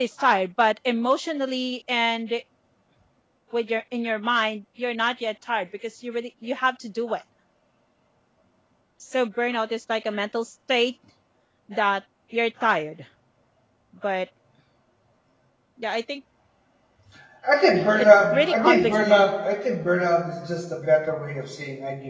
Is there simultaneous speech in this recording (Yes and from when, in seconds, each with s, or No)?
Yes, from 18.0 s